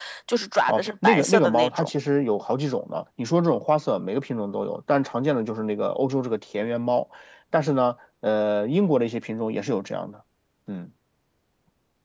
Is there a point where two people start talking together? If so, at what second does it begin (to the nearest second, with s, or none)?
1 s